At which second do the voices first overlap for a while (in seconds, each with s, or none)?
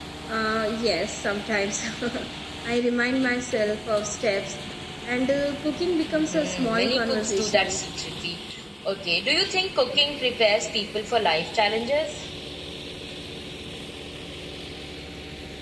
6.1 s